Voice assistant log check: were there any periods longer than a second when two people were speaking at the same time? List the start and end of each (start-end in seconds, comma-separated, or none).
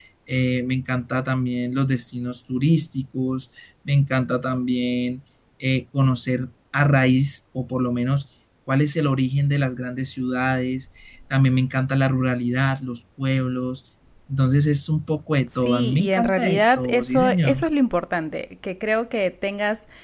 15.6-17.6